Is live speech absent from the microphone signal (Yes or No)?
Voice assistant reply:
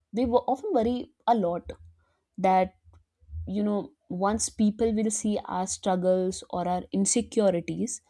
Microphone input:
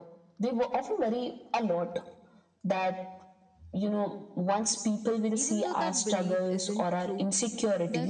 No